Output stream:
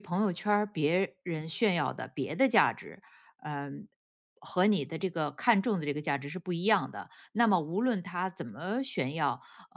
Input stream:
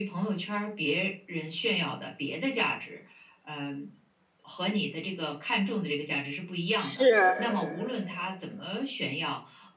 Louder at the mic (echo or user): user